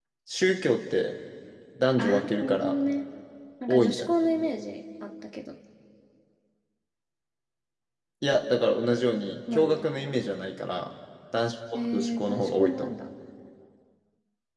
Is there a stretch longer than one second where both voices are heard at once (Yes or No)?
Yes